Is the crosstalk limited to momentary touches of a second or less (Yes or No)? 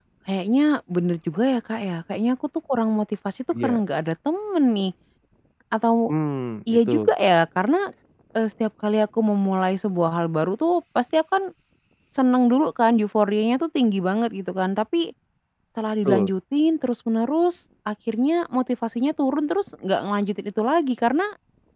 Yes